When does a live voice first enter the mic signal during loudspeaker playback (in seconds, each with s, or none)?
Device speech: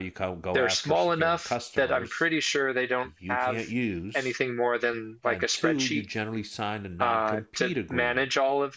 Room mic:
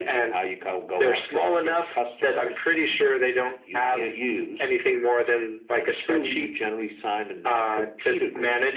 none